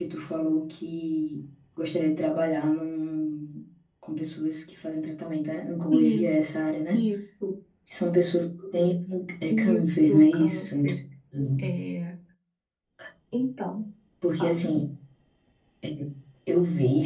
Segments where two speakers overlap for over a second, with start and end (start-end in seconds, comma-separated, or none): 9.5-11.0